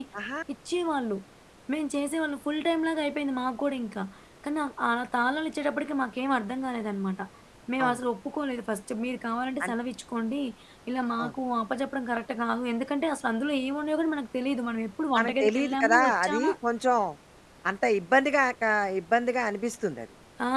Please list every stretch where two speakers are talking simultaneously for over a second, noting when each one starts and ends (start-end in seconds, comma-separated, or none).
15.2-16.5